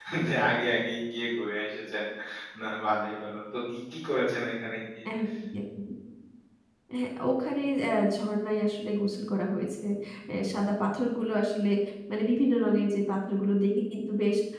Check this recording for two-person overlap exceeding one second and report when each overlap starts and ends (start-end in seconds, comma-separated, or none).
none